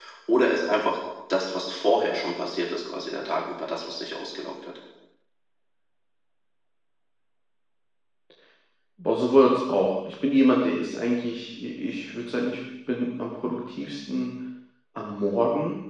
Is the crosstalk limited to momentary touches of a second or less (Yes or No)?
Yes